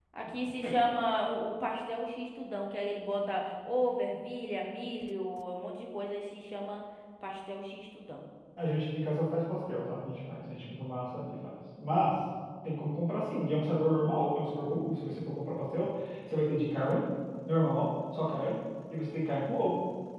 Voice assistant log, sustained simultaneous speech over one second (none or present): none